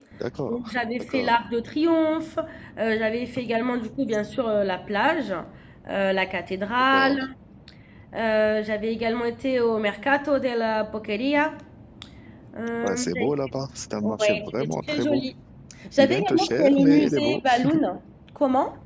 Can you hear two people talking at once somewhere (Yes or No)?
Yes